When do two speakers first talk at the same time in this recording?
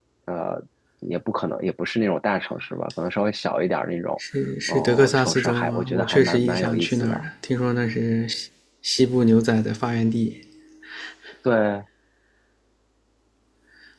5 s

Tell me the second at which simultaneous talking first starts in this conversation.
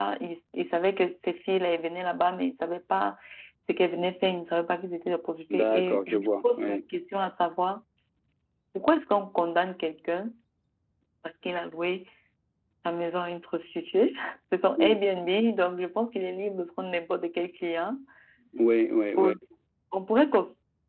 5 s

